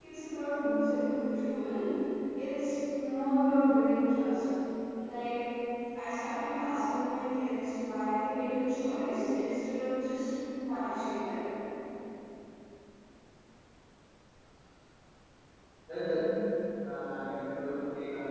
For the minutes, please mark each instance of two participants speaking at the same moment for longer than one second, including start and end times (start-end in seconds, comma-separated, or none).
none